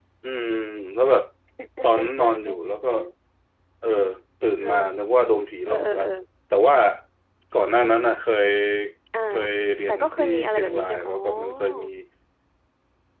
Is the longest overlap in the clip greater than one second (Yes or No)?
Yes